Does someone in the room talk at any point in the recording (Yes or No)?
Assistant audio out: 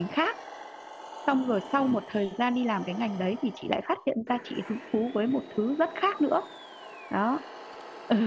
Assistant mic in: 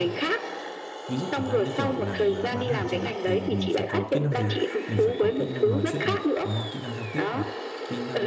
Yes